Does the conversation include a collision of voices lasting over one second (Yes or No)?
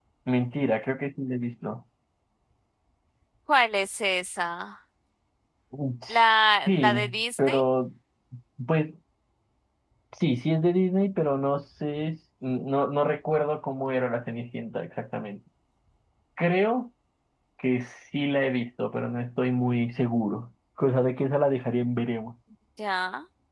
No